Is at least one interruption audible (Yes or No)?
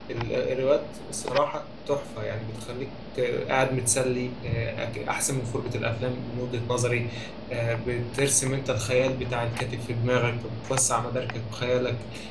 No